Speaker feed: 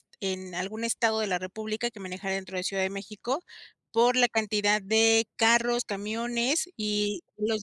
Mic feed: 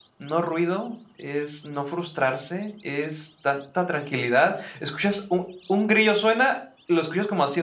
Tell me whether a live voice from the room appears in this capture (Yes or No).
Yes